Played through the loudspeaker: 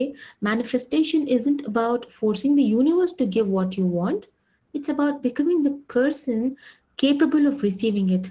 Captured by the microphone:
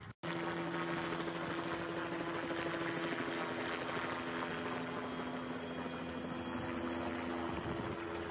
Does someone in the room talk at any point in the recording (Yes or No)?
No